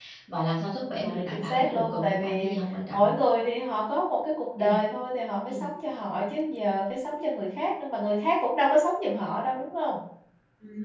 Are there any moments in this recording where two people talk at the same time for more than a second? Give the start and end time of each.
0.8-2.5

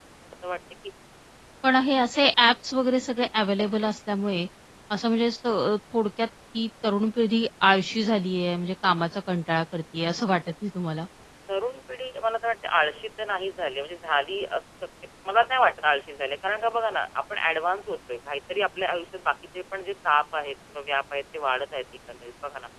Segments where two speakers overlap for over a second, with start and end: none

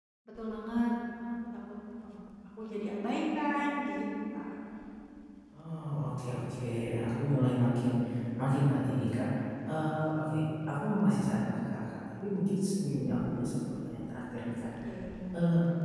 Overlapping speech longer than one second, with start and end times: none

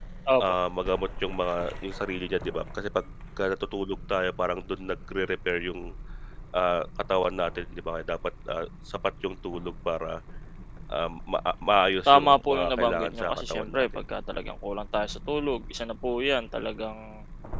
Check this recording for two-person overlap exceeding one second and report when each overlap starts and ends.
12.1-13.9

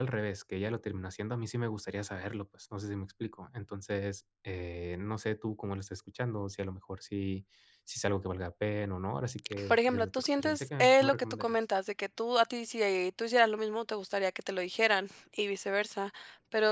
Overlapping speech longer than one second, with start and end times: 9.7-11.6

